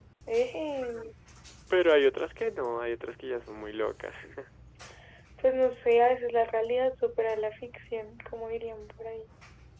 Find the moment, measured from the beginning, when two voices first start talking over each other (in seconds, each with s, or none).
none